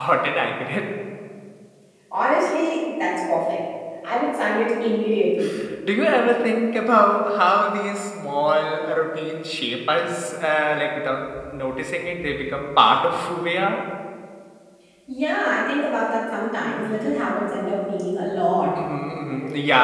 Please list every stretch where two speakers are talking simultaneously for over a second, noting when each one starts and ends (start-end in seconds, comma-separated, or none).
none